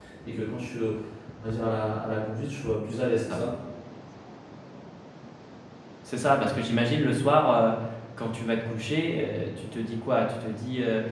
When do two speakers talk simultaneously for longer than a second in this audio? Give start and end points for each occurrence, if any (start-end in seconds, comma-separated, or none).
none